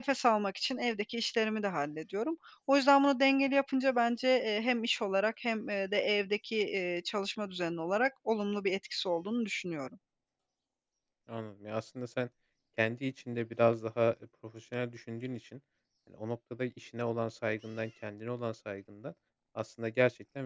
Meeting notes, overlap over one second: none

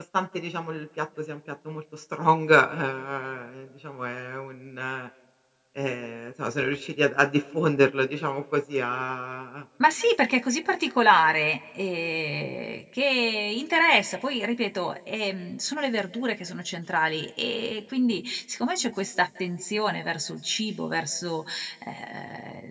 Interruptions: none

